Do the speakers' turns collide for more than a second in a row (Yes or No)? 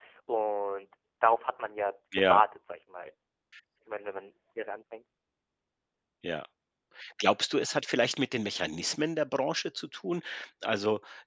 No